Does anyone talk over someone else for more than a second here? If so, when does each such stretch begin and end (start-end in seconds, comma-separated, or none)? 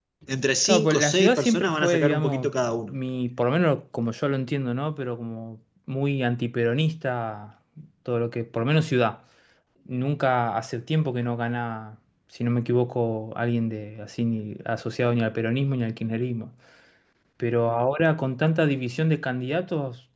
0.6-2.5